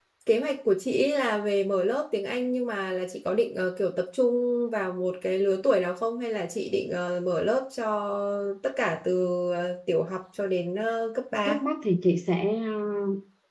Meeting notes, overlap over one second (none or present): none